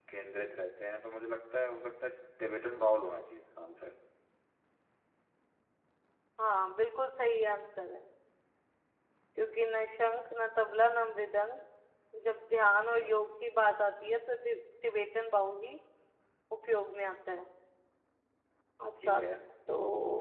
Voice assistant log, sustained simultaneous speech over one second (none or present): none